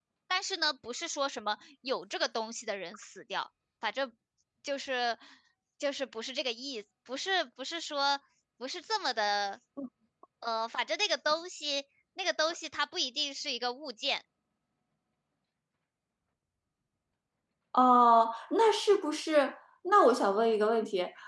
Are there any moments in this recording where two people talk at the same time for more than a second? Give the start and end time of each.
none

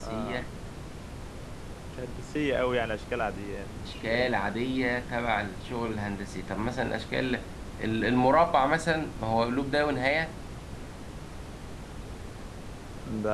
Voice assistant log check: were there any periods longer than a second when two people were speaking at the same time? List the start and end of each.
none

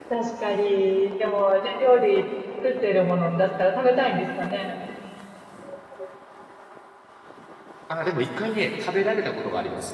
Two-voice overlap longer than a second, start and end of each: none

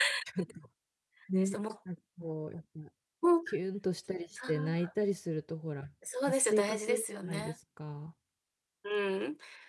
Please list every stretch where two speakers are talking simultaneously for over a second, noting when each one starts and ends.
6.3-7.5

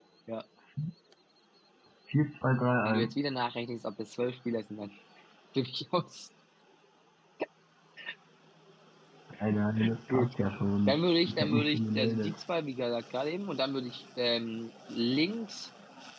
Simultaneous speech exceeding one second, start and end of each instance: 10.9-12.3

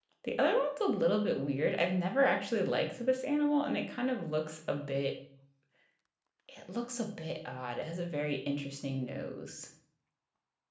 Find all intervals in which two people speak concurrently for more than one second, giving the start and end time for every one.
none

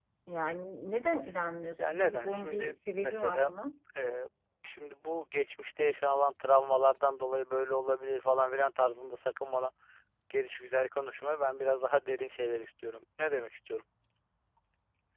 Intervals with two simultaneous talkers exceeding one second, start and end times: 1.9-3.5

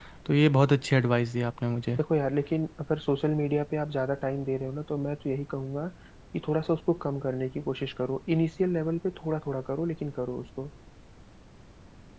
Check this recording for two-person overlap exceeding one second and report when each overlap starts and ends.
none

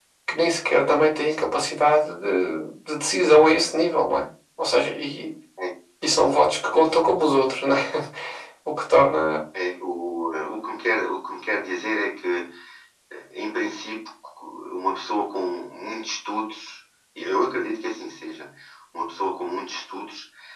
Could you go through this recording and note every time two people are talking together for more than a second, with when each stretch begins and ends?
none

